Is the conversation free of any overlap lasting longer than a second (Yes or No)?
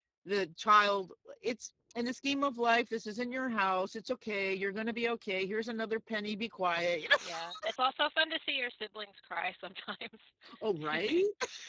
Yes